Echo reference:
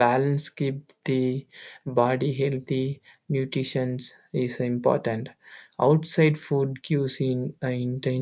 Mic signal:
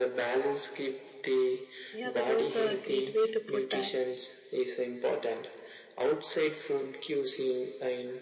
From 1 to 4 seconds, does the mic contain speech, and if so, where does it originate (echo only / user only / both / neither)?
both